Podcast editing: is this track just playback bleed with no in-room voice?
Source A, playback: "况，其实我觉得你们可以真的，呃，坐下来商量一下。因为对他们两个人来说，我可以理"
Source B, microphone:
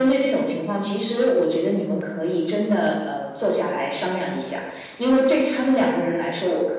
Yes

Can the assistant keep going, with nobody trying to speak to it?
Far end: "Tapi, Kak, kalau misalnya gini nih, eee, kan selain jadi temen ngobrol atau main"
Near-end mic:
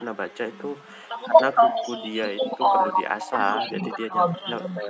No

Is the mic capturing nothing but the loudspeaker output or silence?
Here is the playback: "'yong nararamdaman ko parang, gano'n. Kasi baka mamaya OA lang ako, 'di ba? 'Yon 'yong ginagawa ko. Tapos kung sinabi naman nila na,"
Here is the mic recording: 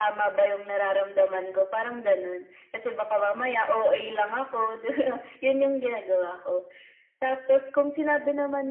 Yes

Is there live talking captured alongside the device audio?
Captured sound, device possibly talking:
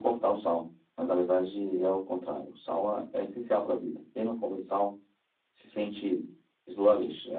No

